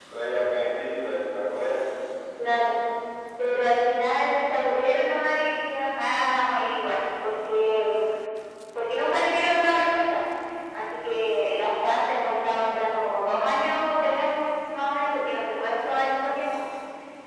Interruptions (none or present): none